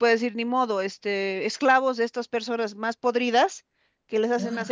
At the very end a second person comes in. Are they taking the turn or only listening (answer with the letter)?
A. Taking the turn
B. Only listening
B